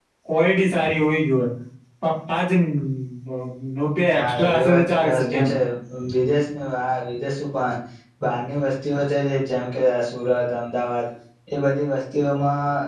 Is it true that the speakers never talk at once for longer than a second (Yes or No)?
No